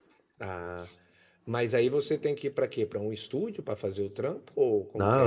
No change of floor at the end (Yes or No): No